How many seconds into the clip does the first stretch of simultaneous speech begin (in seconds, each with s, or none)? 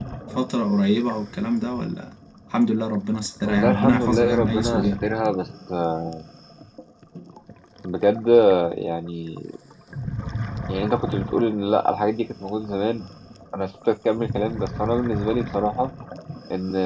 3.4 s